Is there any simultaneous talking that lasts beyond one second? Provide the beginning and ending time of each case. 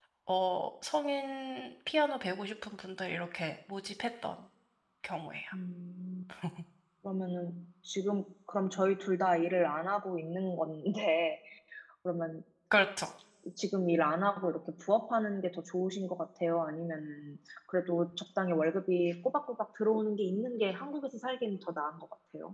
none

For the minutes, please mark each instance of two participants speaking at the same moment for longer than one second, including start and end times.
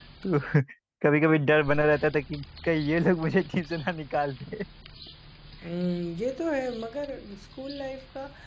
none

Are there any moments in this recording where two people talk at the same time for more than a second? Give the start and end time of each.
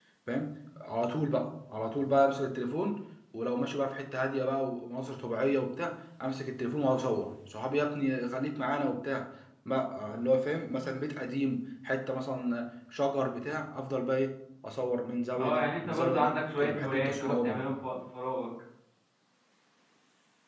15.3-17.6

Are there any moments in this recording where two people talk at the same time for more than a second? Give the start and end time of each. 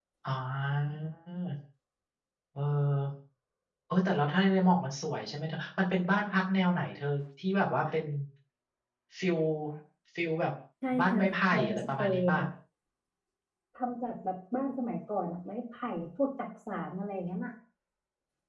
11.0-12.4

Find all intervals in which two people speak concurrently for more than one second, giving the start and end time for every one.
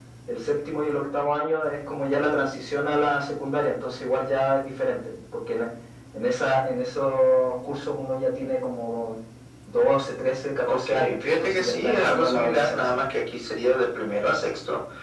10.7-13.0

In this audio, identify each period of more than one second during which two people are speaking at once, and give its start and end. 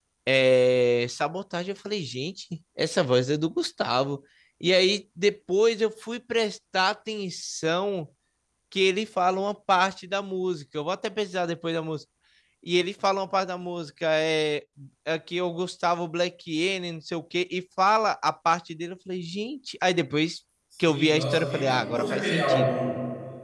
20.8-22.7

